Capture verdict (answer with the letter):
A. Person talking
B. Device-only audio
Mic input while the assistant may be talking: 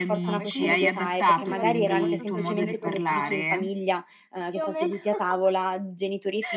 A